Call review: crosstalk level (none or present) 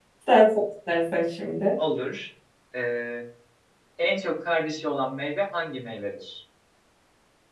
none